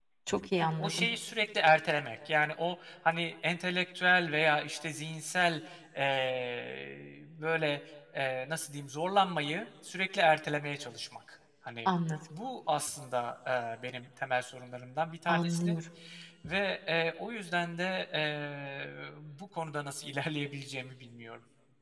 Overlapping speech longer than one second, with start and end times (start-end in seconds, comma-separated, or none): none